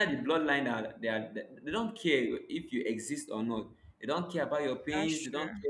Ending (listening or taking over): listening